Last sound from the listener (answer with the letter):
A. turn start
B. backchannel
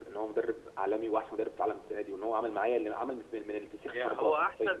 A